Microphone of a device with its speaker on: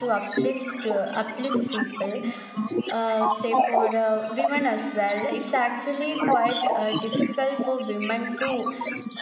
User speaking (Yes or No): Yes